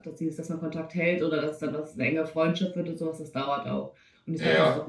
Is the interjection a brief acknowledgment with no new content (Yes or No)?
Yes